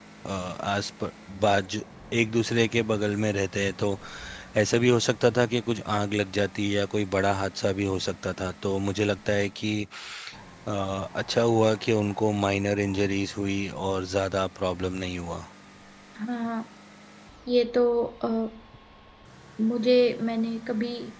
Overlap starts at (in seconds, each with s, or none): none